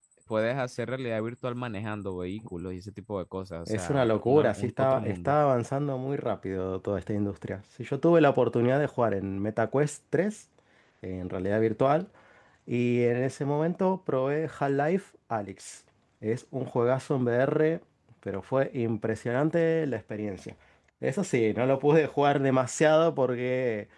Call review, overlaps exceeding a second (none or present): present